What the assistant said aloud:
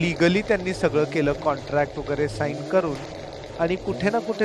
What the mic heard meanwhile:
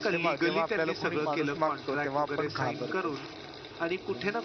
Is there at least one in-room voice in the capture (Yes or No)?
Yes